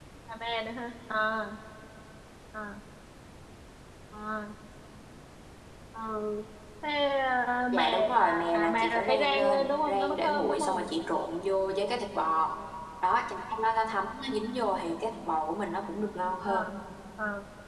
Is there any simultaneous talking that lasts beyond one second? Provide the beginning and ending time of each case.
7.7-10.9

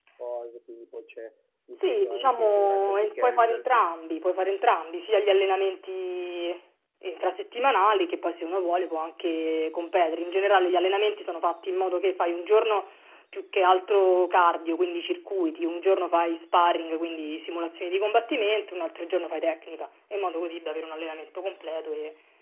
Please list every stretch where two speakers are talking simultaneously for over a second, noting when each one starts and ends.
1.8-3.6

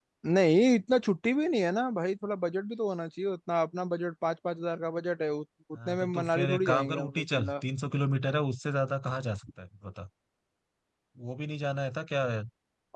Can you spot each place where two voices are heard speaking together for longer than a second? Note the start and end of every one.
5.9-7.5

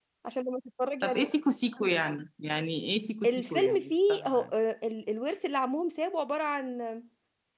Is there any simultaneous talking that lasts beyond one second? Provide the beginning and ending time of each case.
3.3-4.5

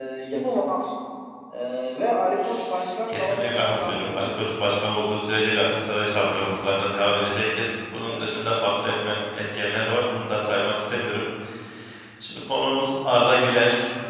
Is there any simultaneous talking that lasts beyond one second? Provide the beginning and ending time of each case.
3.1-4.4

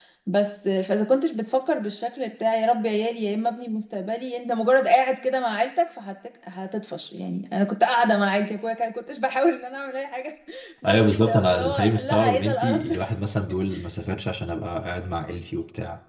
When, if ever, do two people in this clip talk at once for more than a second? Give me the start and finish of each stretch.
10.8-13.0

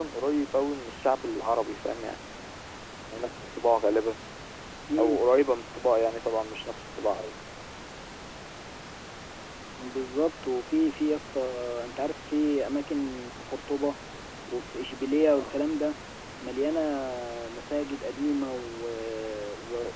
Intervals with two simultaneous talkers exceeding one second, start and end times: none

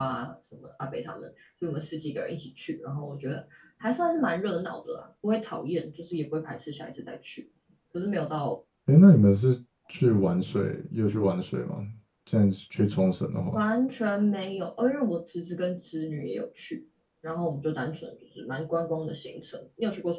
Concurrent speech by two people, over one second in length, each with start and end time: none

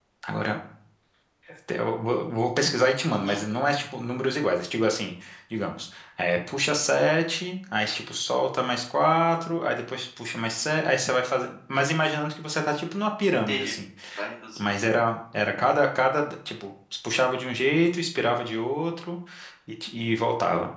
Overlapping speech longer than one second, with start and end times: none

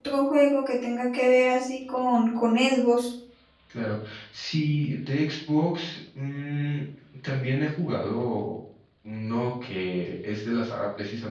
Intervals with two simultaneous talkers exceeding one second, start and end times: none

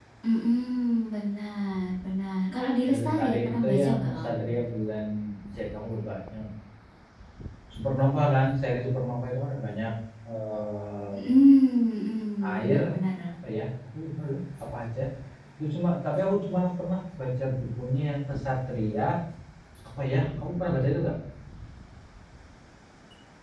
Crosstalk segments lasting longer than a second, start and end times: 2.9-4.4

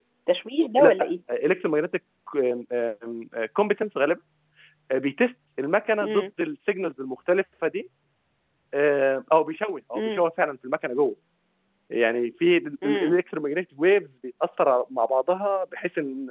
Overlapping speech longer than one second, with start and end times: none

